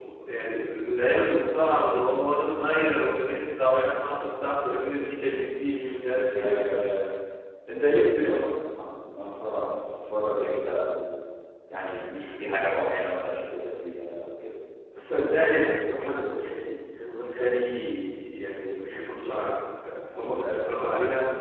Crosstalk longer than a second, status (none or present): none